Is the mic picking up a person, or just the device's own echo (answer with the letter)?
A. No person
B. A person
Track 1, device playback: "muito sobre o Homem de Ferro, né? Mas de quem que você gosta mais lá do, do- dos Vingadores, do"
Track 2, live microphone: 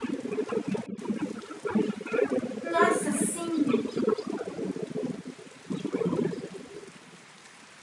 B